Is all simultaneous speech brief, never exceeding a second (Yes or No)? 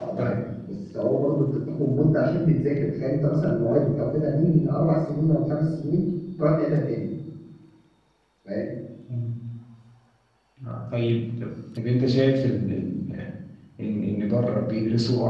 Yes